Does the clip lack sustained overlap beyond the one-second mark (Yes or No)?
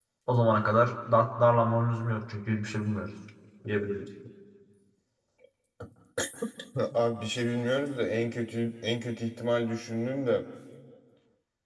Yes